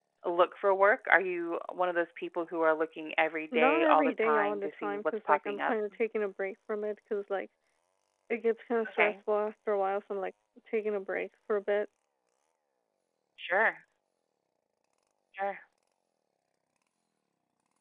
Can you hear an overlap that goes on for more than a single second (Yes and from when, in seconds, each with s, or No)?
Yes, from 3.5 s